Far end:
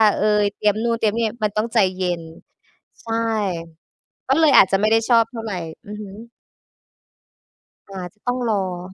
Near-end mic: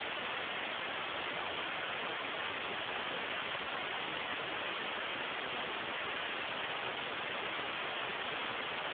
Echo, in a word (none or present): none